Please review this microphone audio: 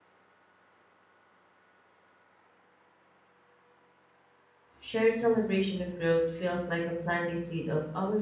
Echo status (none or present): none